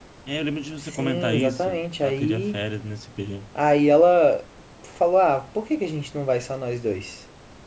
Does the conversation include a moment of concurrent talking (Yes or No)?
Yes